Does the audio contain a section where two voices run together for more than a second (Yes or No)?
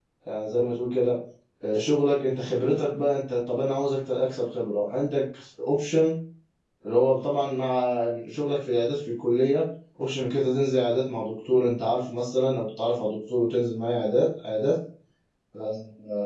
No